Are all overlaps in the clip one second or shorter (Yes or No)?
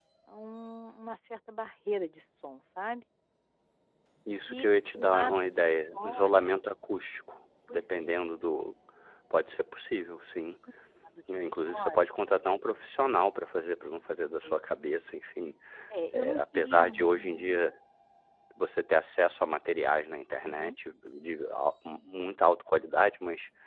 No